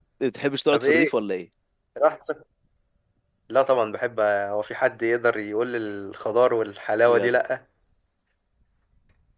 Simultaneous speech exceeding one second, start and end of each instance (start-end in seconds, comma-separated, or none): none